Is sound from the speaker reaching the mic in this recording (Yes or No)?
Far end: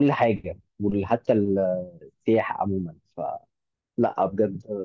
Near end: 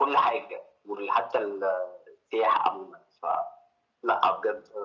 Yes